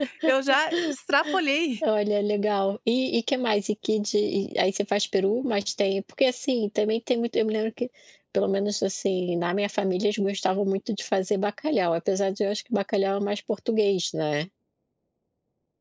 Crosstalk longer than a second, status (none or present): none